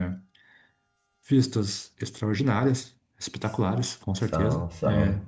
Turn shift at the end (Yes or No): No